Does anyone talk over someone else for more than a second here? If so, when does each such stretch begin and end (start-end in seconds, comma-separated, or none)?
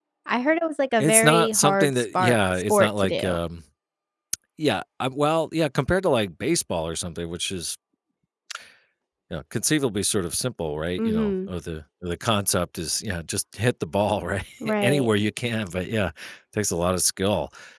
1.0-3.4